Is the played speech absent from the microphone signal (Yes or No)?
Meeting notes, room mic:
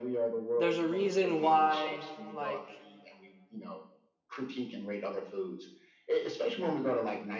No